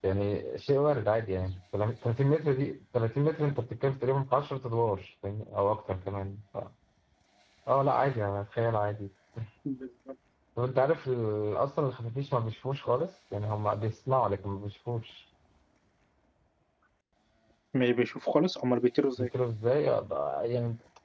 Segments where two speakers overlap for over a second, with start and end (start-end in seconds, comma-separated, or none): none